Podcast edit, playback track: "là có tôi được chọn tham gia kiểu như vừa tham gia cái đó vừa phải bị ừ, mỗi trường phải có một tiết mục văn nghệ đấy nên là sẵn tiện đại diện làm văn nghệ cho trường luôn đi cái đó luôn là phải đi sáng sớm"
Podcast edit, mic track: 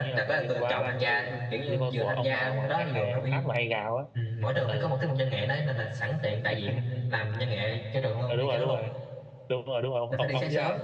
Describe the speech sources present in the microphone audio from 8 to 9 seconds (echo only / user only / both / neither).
both